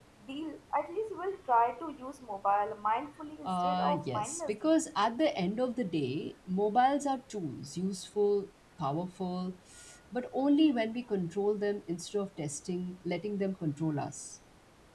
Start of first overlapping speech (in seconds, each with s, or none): 3.4 s